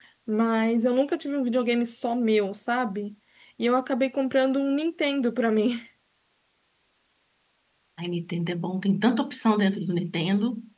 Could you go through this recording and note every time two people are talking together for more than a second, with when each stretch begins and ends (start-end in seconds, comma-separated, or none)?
none